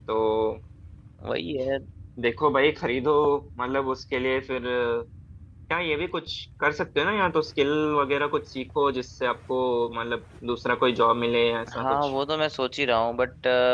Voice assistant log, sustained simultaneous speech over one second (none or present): none